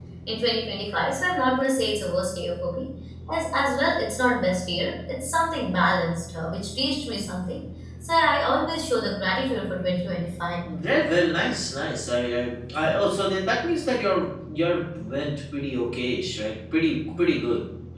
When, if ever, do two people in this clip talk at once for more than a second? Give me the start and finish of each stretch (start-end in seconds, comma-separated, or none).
none